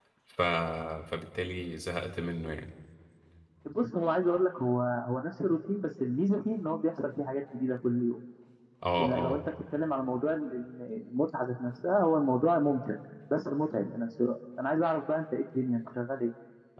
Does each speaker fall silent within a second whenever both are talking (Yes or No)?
Yes